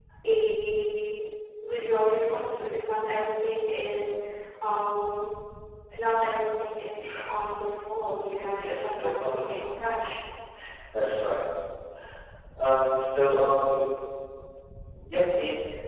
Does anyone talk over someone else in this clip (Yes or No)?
Yes